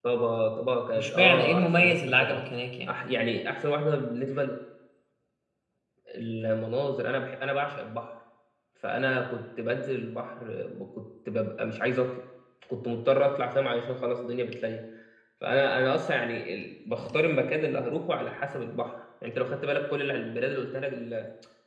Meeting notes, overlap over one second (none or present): present